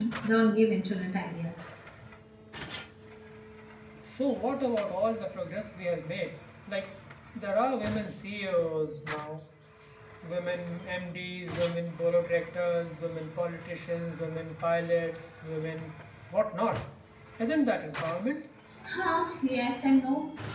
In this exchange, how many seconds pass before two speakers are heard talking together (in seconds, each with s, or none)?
none